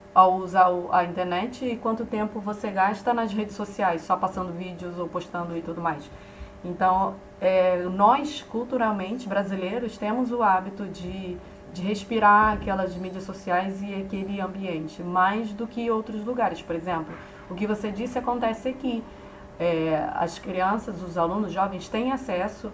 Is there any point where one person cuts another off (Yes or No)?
No